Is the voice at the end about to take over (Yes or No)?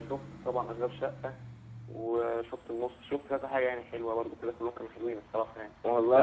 No